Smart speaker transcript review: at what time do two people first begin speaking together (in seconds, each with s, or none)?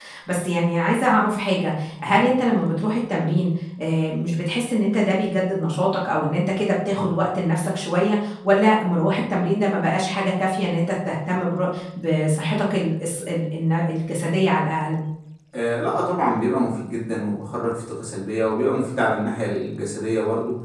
none